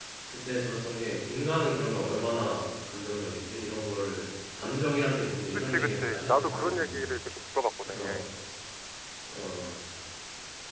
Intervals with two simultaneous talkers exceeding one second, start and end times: 5.7-7.1

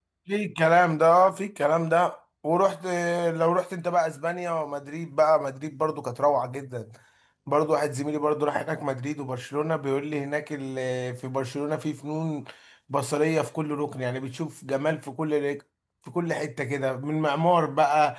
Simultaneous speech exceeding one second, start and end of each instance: none

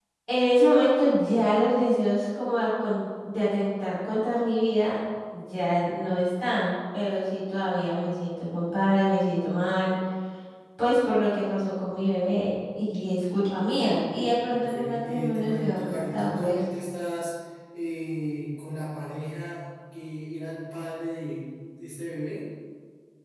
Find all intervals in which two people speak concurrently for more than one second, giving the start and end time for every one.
14.5-16.6

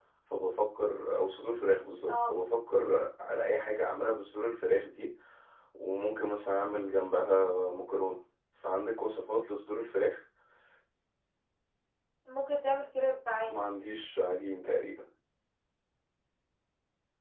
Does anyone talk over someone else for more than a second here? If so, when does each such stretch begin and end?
none

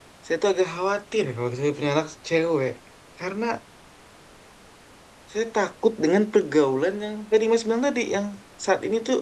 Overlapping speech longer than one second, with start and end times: none

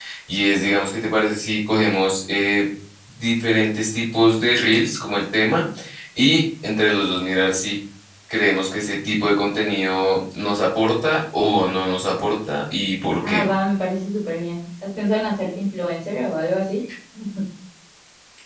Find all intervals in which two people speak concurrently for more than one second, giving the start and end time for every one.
none

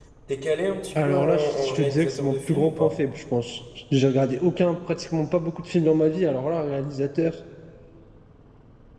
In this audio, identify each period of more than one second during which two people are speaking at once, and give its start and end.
1.0-2.9

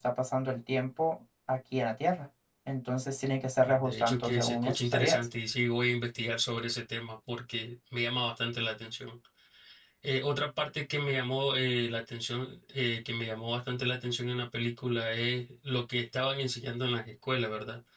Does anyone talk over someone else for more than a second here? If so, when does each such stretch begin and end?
3.6-5.3

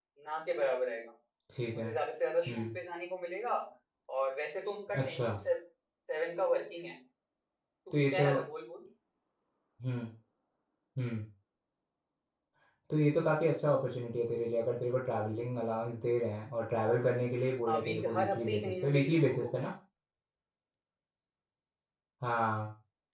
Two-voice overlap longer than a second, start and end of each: 17.7-19.6

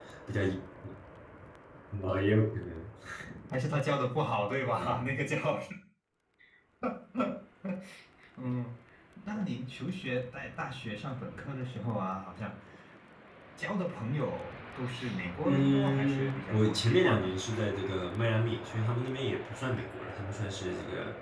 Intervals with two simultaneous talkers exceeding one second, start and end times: 15.4-17.4

